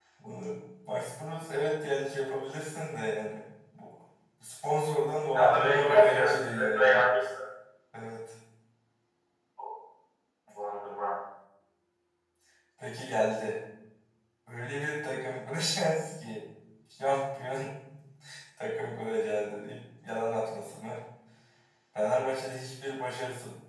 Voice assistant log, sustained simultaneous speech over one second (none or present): present